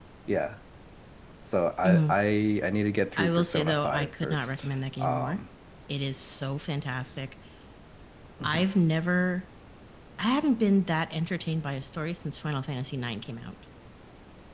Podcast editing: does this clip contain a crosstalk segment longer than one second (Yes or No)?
Yes